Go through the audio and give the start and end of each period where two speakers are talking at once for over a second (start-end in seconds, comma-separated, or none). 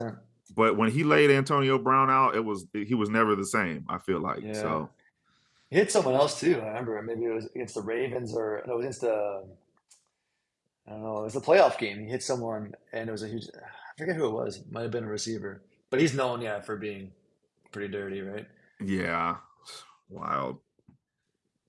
none